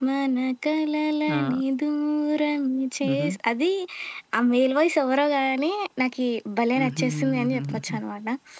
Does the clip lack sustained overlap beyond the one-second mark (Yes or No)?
No